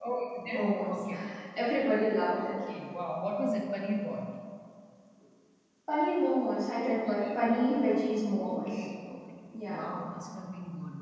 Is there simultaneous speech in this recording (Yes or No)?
Yes